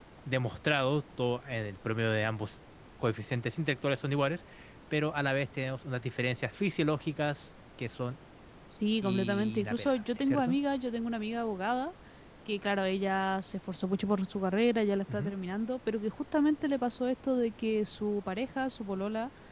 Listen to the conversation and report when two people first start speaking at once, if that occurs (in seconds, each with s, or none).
9.0 s